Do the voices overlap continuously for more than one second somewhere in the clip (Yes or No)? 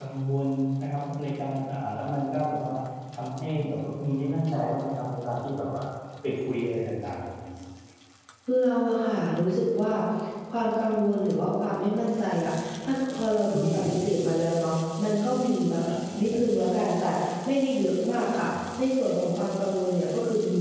No